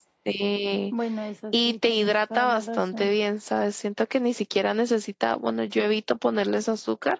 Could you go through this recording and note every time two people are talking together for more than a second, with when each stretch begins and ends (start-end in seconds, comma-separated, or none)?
1.5-3.1